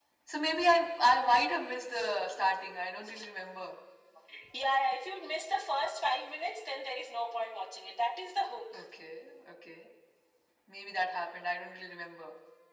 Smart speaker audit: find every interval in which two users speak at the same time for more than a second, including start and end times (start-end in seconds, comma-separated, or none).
none